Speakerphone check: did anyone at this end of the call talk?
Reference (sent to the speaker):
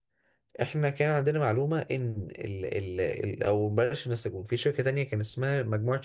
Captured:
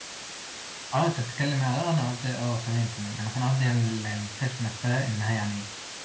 Yes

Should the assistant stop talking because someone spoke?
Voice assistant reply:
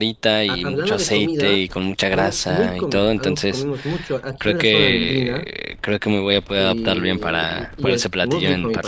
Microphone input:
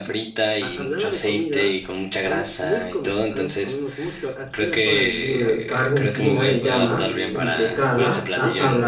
Yes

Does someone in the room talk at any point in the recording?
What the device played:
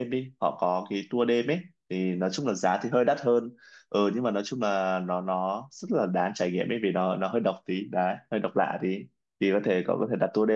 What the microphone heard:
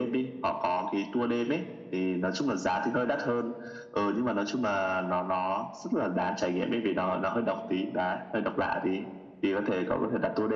No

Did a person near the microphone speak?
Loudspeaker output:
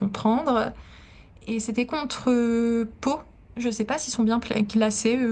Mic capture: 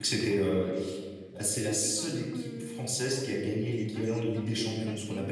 Yes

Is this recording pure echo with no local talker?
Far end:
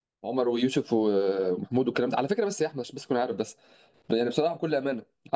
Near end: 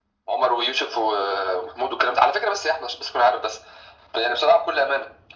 Yes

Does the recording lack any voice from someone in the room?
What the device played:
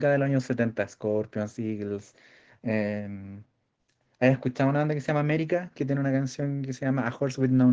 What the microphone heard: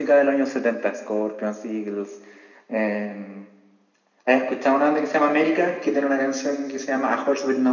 Yes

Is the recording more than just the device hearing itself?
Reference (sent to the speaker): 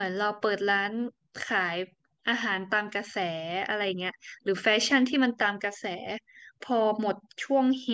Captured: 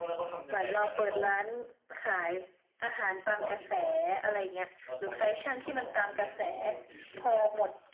Yes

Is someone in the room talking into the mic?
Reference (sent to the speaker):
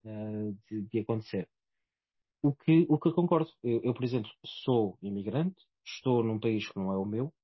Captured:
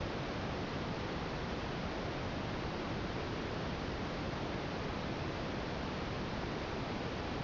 No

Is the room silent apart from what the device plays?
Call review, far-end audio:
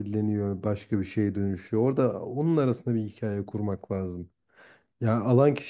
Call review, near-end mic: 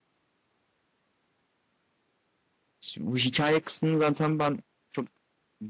No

